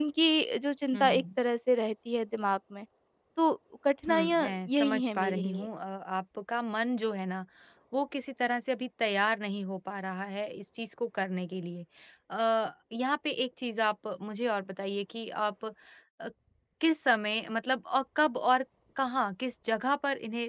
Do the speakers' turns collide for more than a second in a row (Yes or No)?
Yes